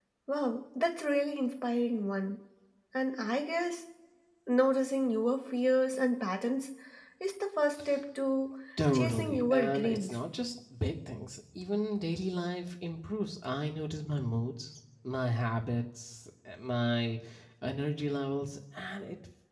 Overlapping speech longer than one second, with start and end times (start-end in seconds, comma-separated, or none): 8.9-10.2